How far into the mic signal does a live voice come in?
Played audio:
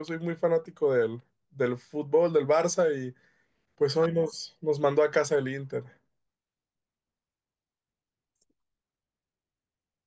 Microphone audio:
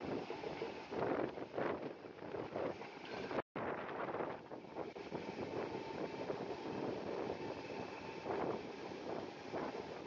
none

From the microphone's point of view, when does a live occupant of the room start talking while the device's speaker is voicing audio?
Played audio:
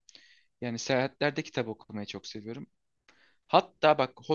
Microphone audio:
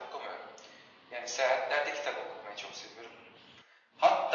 none

